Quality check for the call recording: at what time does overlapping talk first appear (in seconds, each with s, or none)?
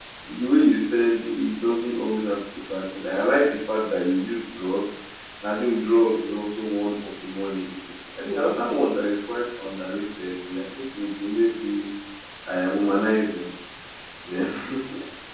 none